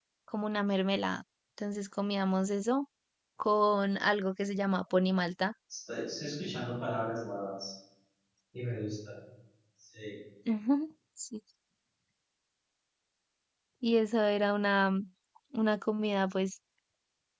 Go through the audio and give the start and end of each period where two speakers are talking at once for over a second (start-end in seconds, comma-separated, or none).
none